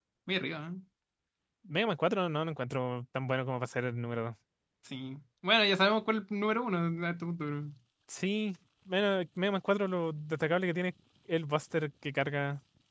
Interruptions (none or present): none